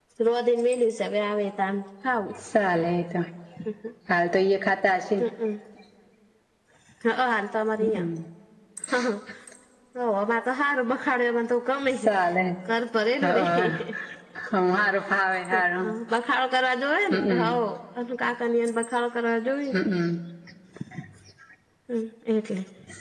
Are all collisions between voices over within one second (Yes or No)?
Yes